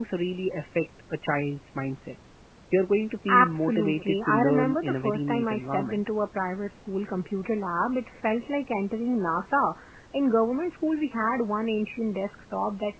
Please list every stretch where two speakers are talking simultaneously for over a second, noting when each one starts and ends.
3.3-6.0

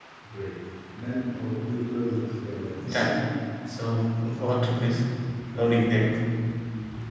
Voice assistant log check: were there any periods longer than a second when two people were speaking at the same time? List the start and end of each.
none

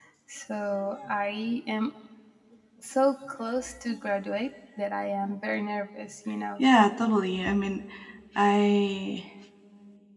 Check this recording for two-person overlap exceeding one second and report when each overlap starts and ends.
none

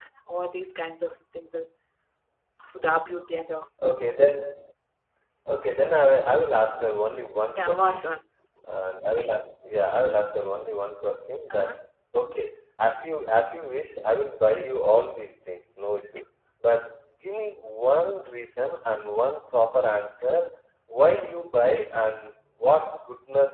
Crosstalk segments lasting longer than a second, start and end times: none

